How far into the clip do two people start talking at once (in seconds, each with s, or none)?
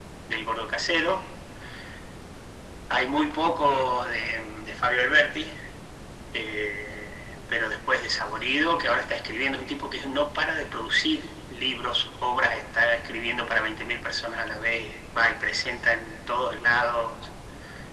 none